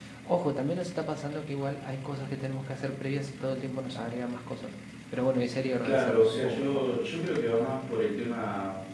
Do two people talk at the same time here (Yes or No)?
Yes